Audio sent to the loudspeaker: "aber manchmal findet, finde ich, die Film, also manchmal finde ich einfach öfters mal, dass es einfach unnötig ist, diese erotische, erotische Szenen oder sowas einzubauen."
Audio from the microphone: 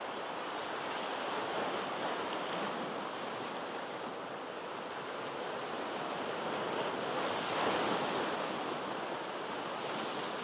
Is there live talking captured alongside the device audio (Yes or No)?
No